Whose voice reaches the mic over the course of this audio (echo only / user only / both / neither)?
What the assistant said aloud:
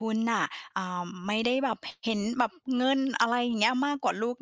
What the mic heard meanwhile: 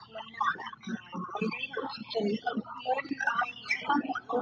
echo only